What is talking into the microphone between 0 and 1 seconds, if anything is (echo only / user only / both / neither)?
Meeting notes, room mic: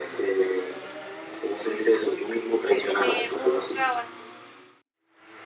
echo only